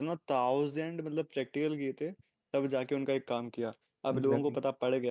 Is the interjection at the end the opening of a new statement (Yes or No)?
No